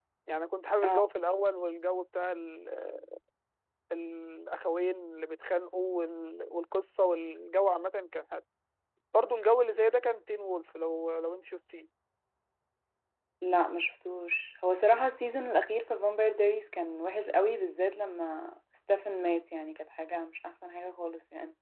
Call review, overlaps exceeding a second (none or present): none